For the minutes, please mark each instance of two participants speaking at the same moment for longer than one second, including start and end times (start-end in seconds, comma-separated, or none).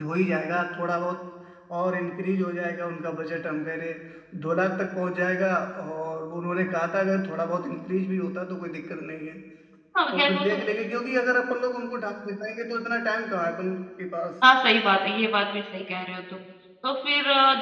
none